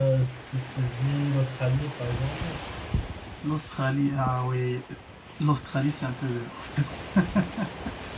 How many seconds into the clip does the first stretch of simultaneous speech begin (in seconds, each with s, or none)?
none